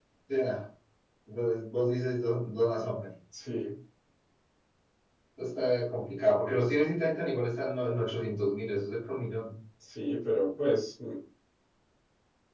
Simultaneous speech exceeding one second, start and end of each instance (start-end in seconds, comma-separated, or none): none